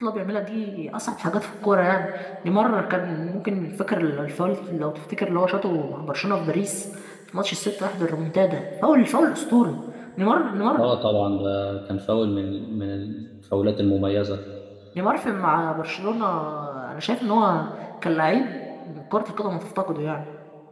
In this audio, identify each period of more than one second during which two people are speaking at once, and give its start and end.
none

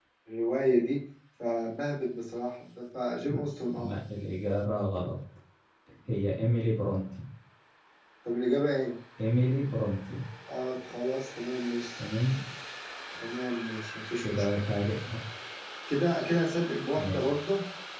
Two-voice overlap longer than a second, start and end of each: none

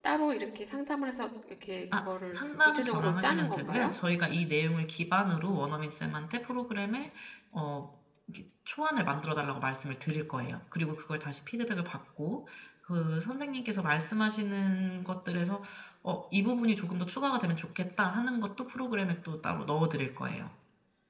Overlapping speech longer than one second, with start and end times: 1.9-3.9

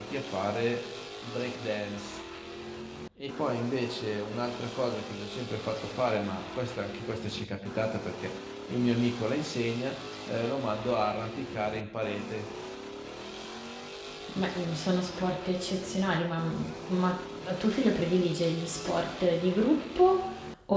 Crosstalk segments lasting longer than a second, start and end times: none

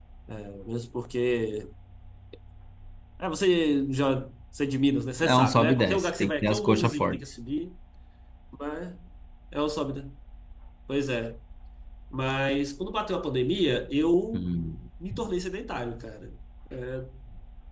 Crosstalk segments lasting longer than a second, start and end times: 5.2-7.2

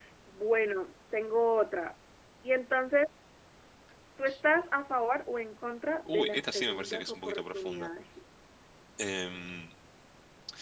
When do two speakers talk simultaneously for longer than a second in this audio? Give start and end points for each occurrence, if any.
6.1-7.9

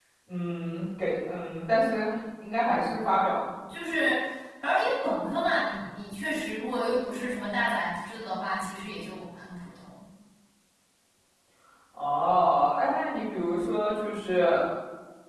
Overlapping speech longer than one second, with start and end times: none

